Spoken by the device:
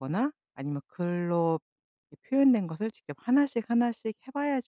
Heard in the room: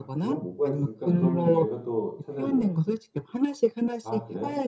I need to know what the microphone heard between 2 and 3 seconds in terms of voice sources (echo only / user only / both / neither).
both